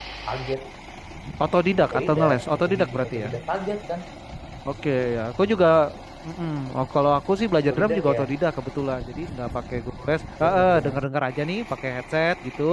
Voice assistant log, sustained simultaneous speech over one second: present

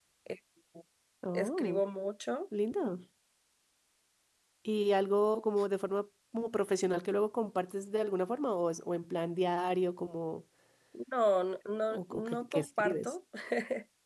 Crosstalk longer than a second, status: present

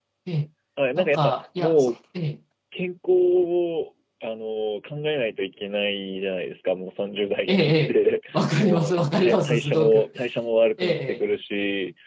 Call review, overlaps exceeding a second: present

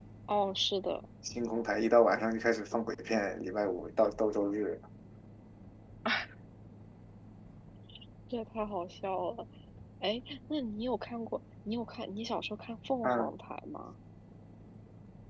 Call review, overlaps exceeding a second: none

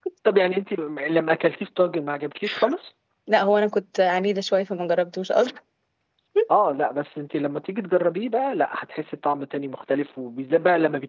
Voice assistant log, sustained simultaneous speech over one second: none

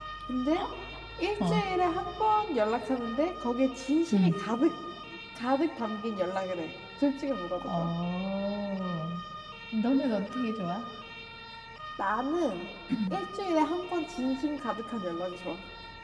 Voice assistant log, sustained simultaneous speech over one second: none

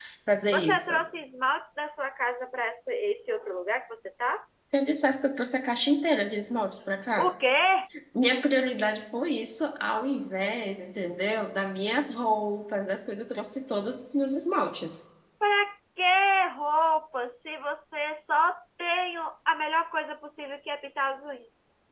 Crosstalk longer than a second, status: none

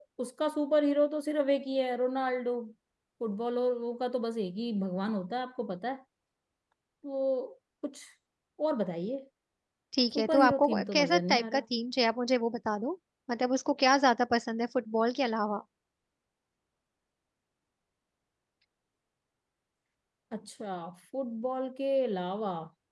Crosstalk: present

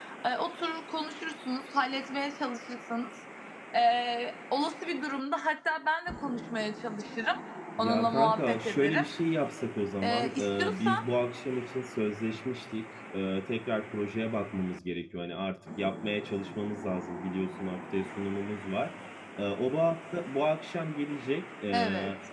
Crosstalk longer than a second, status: present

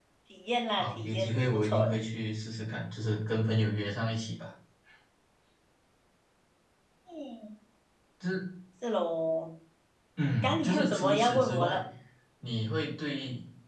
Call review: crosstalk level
present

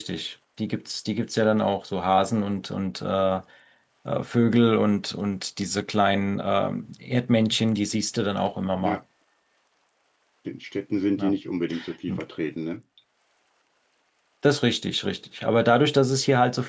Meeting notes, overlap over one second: none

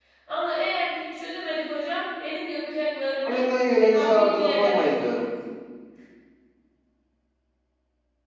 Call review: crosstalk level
present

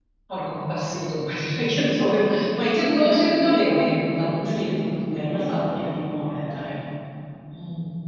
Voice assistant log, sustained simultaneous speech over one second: present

